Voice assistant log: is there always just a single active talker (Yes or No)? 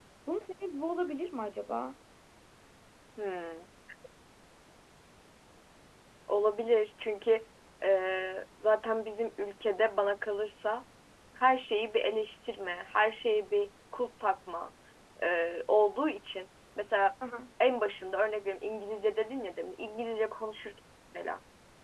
Yes